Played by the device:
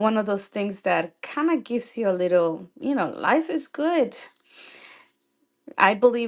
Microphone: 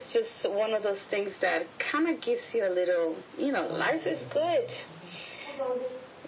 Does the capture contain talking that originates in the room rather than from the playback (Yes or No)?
Yes